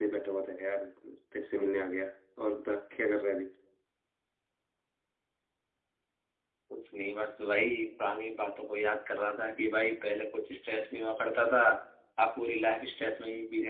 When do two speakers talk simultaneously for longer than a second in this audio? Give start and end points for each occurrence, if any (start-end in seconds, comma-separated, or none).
none